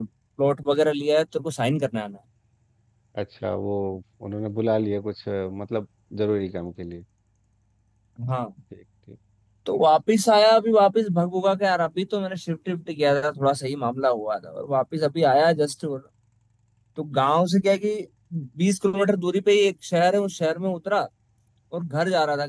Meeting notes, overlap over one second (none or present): none